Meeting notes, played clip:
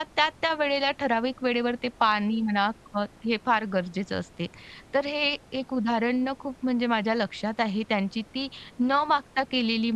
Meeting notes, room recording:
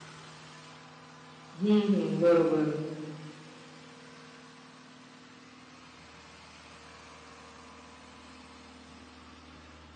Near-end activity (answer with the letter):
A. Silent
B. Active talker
B